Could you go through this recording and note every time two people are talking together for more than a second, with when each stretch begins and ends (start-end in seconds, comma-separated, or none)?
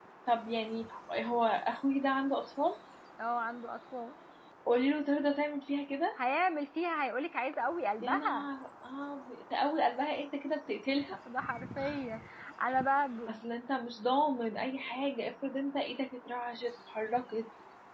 none